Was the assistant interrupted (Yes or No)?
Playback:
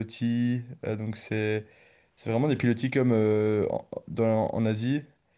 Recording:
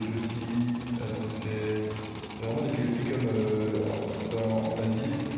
No